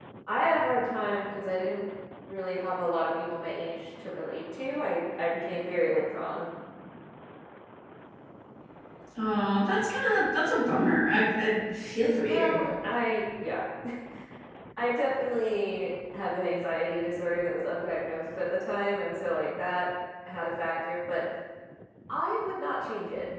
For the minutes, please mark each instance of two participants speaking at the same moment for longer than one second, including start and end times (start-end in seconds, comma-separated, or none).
none